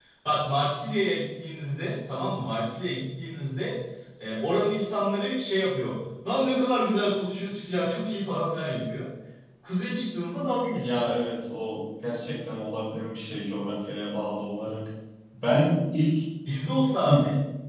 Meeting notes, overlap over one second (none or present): none